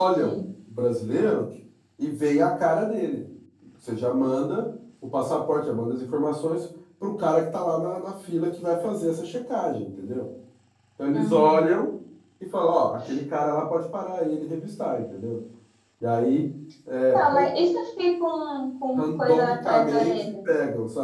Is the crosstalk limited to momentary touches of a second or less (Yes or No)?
No